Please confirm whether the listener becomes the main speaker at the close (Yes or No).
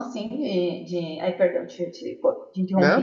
No